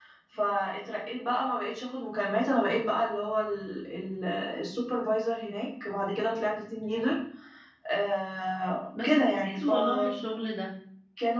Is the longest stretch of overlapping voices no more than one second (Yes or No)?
No